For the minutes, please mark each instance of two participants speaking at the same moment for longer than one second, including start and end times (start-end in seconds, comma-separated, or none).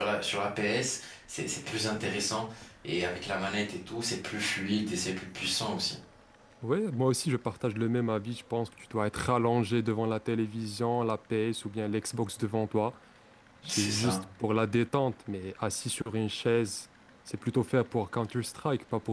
none